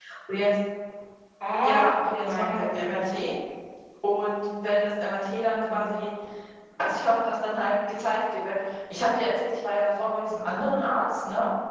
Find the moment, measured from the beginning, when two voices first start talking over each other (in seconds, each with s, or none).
1.6 s